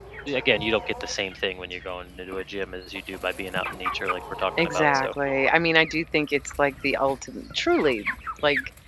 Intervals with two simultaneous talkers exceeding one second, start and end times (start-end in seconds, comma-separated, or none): none